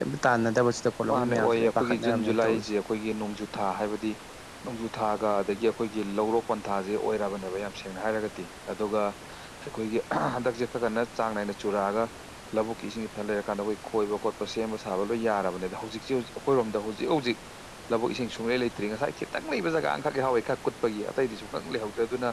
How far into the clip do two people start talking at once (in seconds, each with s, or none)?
1.1 s